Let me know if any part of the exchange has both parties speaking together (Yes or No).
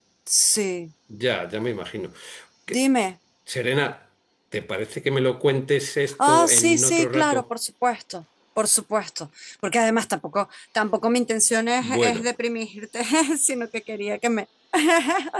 Yes